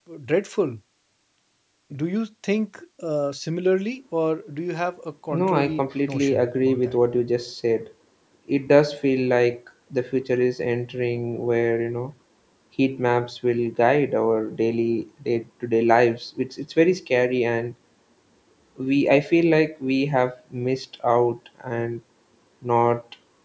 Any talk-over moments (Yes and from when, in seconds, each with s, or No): Yes, from 5.3 s